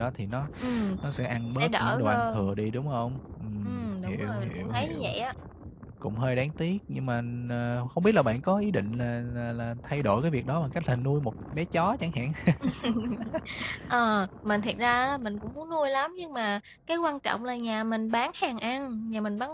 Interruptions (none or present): present